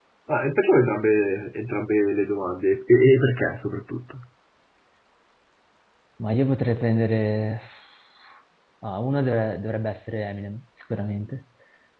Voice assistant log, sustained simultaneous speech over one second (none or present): none